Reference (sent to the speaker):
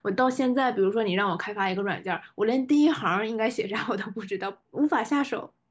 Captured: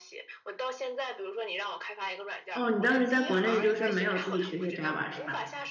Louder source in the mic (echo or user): user